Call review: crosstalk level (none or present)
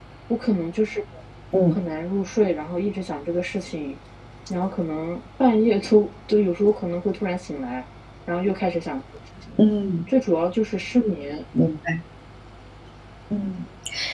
none